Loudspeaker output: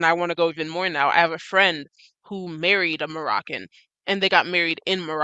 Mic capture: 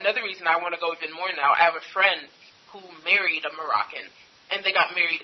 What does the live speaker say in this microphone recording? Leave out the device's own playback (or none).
none